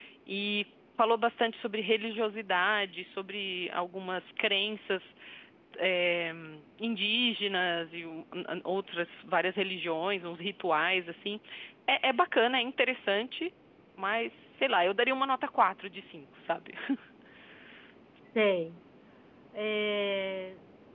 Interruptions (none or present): none